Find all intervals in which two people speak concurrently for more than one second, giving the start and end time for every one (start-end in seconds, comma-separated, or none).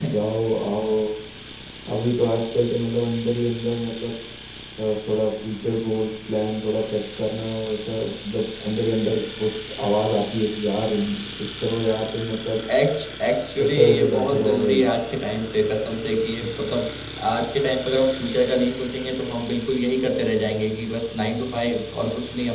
13.6-14.8